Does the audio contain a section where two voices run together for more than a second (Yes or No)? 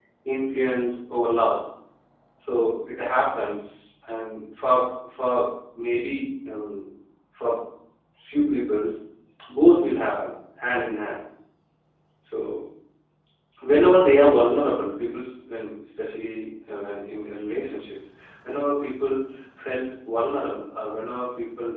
No